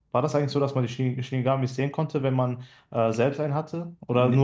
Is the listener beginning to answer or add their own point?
Yes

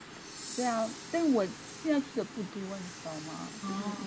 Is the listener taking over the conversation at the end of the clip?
No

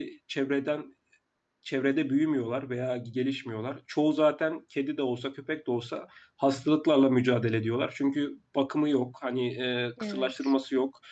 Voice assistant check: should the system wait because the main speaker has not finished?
Yes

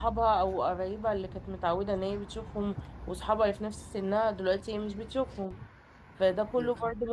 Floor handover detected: No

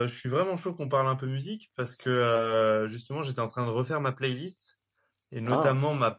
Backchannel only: Yes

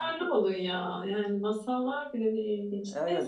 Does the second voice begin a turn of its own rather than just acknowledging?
Yes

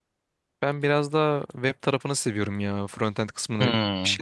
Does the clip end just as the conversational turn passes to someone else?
No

